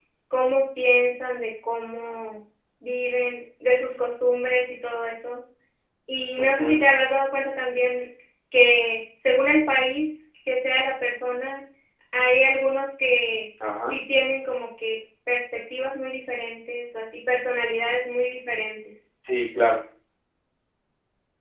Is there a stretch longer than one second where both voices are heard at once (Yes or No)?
No